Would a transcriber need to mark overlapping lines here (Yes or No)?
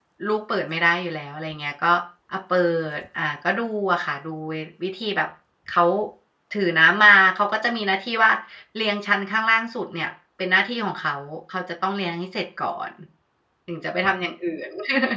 No